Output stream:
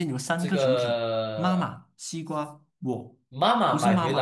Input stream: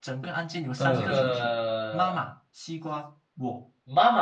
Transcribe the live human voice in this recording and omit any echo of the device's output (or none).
呃，